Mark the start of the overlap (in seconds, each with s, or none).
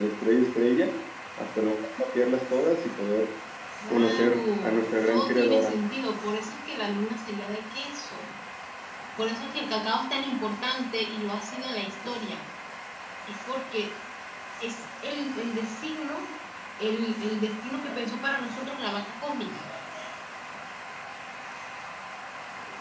3.9 s